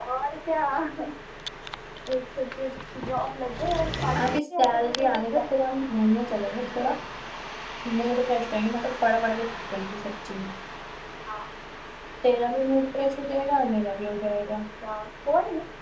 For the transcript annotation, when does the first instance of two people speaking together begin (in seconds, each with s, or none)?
4.2 s